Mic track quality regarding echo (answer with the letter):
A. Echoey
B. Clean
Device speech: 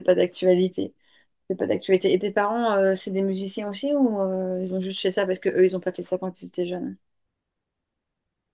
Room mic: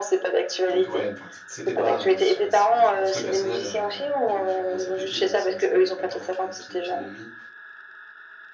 A